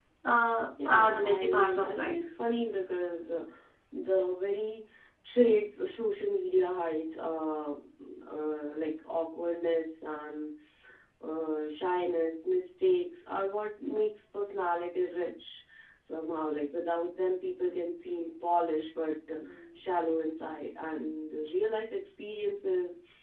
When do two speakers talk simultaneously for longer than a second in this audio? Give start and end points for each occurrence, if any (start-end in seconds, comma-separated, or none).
0.8-2.1